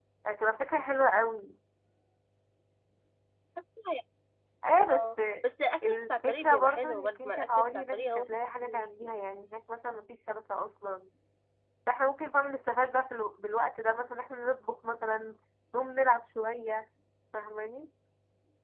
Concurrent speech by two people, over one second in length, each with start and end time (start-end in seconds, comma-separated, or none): 5.8-8.3